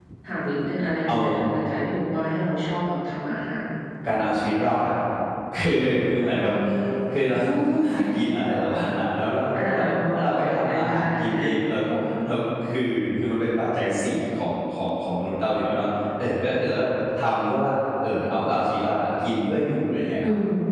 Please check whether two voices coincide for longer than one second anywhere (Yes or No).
Yes